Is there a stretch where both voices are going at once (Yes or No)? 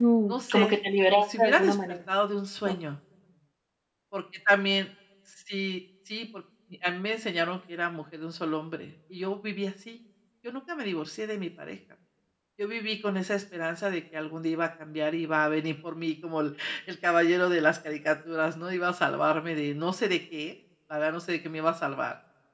Yes